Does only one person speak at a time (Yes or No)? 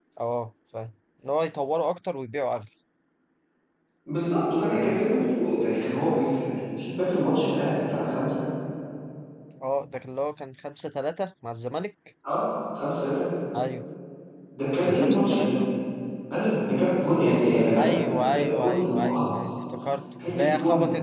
No